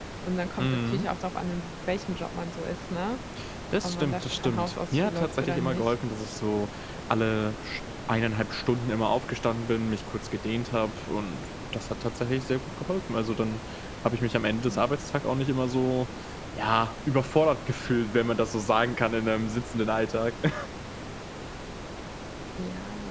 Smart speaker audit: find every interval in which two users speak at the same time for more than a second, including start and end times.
3.8-5.9

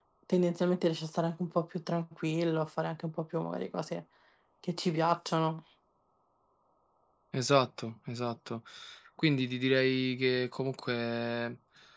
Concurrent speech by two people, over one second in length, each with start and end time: none

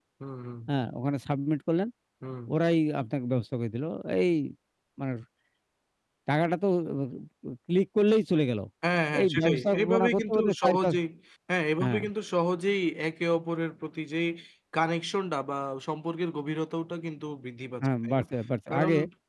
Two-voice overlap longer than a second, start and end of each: 9.2-11.0

